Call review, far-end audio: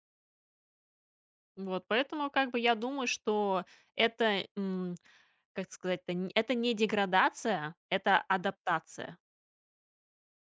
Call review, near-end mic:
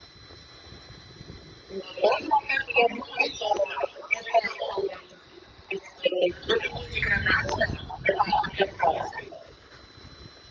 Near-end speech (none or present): none